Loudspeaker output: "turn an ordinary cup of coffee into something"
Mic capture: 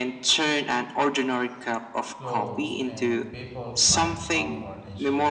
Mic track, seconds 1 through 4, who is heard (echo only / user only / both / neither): both